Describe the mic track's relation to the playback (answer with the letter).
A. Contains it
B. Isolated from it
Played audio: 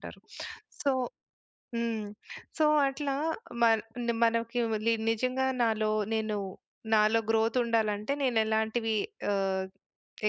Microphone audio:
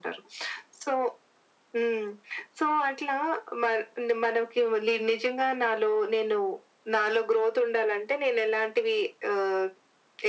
A